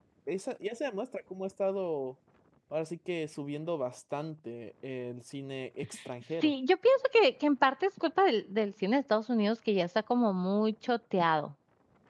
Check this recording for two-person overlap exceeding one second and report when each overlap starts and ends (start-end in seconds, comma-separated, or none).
none